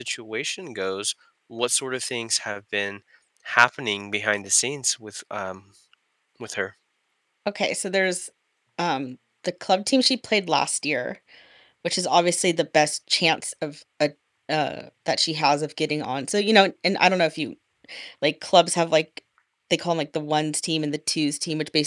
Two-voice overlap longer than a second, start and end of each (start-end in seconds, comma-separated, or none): none